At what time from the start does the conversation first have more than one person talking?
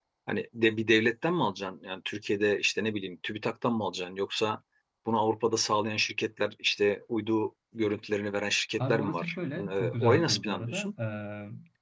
9 s

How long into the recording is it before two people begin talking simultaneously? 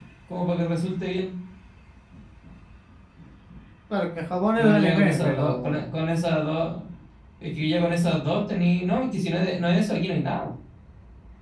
5 s

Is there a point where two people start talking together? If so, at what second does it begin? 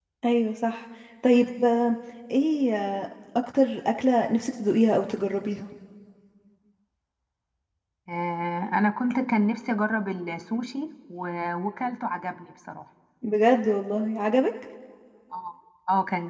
none

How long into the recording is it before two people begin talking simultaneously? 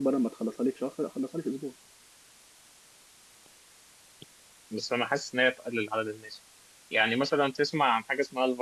none

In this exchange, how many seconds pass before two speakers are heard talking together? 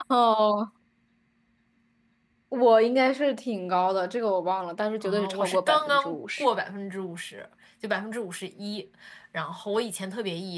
5 s

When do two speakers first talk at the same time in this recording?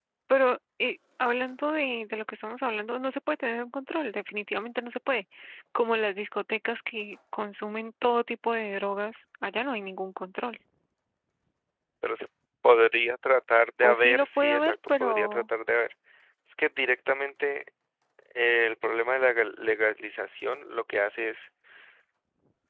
14 s

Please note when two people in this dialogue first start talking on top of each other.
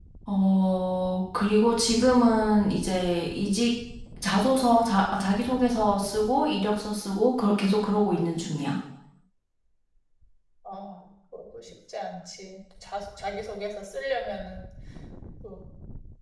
none

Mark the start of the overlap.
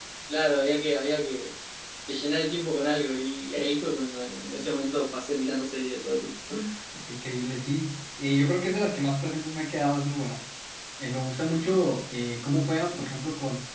none

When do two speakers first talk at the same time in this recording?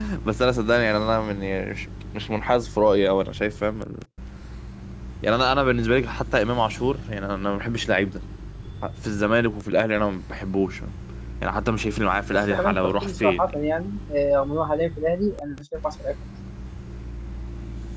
12 s

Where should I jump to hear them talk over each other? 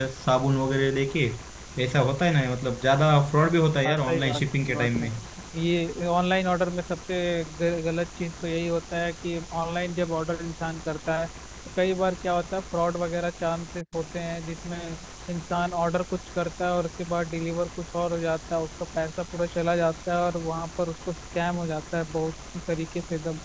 4 s

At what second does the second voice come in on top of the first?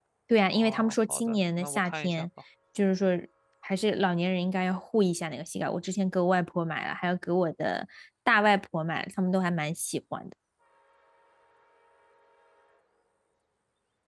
1 s

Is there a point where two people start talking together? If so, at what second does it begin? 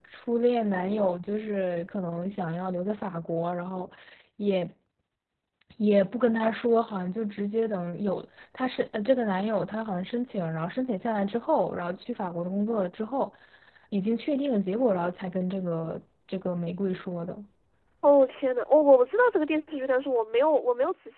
none

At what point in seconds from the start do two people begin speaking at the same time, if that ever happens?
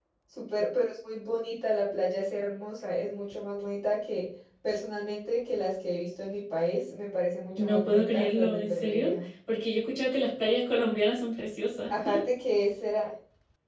8 s

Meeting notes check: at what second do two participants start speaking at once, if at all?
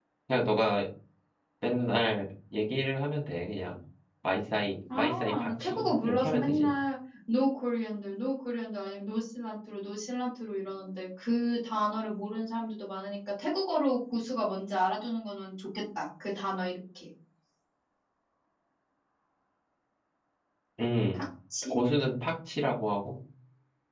5 s

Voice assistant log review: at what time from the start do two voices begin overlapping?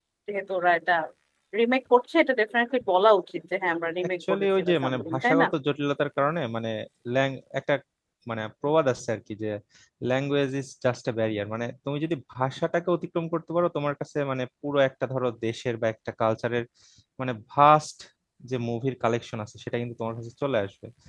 4 s

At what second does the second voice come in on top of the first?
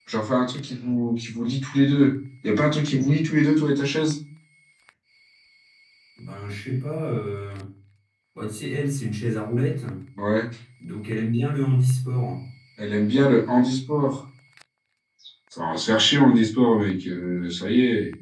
none

